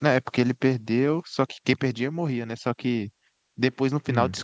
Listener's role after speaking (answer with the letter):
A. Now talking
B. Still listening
B